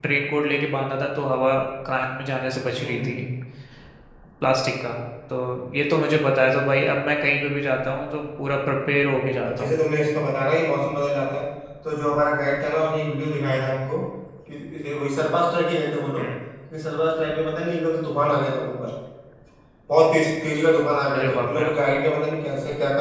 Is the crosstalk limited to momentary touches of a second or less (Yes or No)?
Yes